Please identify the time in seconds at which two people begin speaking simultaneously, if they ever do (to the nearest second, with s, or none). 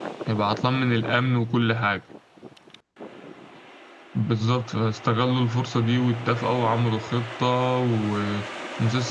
none